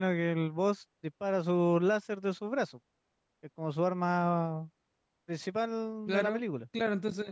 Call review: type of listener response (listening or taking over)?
taking over